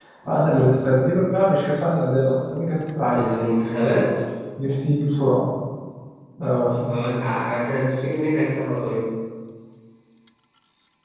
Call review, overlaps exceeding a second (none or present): none